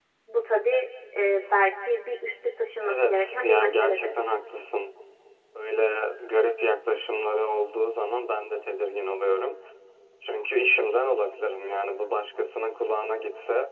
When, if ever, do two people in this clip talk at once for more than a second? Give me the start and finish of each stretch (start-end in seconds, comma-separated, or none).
2.8-4.2